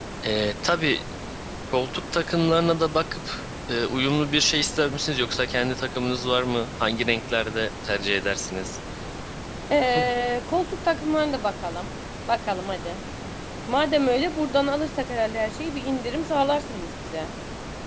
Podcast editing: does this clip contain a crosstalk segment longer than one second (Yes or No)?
No